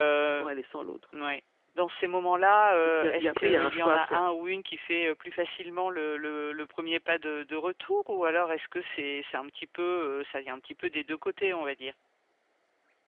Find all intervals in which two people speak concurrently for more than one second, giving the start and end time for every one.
3.0-4.2

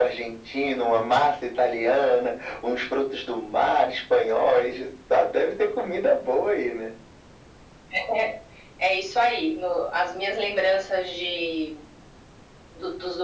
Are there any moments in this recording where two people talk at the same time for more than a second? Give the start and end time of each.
none

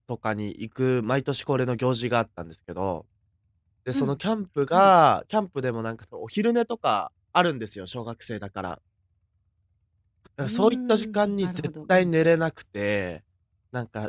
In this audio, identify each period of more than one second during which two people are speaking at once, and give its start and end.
10.4-12.1

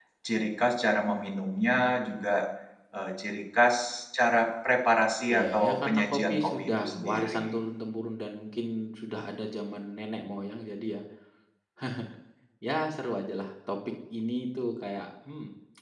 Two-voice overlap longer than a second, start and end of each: 5.3-7.5

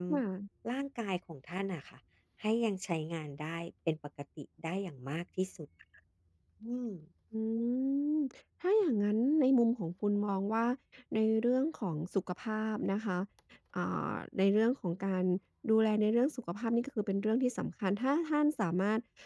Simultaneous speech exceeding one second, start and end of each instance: none

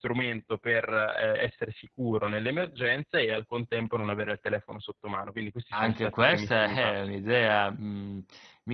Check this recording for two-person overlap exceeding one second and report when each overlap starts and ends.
5.7-7.2

